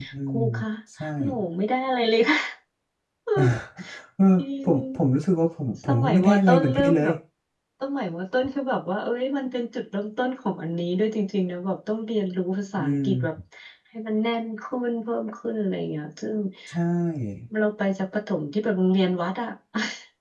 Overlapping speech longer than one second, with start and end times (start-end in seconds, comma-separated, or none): 5.9-7.1